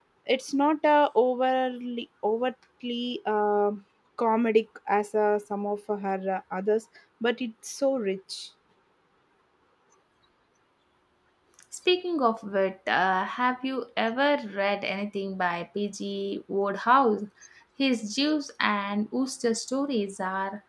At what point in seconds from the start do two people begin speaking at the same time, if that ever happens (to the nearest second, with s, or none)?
none